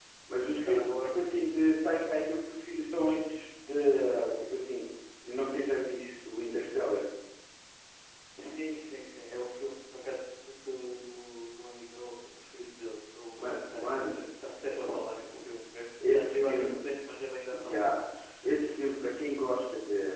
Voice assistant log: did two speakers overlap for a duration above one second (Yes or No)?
Yes